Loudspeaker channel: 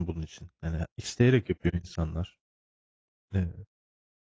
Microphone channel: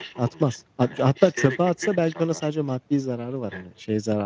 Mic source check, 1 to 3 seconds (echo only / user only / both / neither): both